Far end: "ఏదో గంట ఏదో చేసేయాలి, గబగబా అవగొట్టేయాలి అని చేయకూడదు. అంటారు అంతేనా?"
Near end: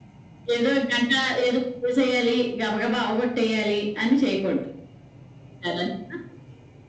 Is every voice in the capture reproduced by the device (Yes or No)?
Yes